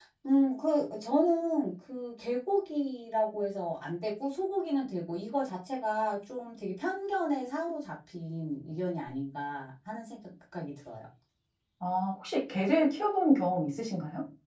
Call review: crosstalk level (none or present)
none